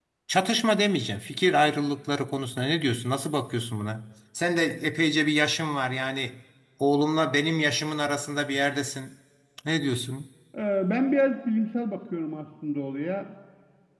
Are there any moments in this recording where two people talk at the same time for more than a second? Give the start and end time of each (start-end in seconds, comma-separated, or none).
none